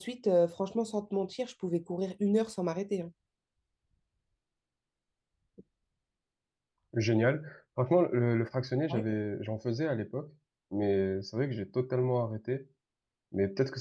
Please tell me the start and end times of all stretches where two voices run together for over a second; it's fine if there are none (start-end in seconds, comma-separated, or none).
none